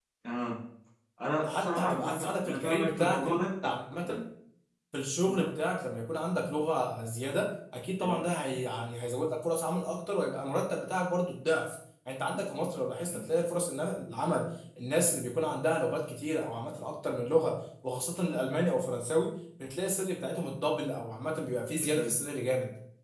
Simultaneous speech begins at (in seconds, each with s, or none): 1.4 s